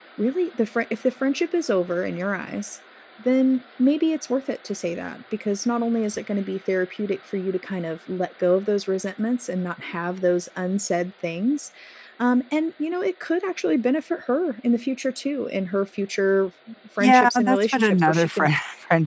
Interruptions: present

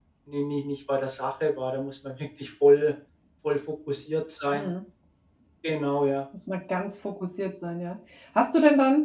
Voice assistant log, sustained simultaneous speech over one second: none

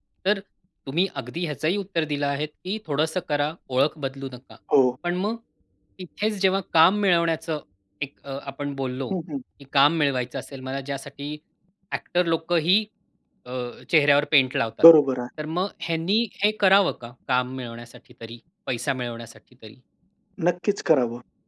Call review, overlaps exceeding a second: none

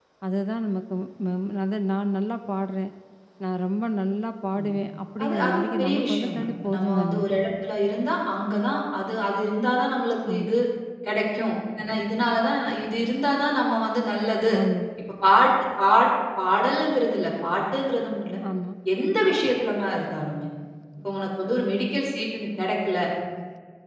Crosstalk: present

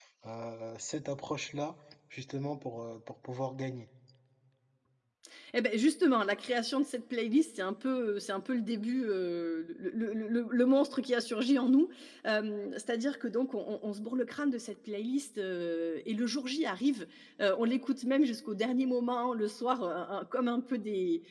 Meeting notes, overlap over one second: none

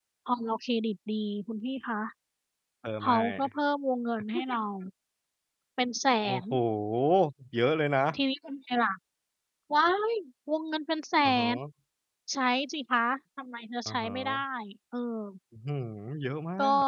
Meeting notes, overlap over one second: none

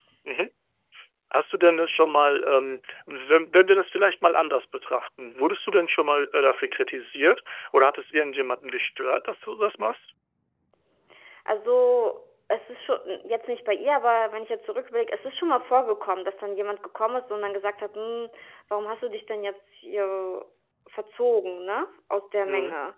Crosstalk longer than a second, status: none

